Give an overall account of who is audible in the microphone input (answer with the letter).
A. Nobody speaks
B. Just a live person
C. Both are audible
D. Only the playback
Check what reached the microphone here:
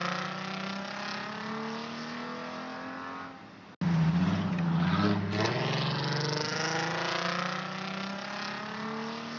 A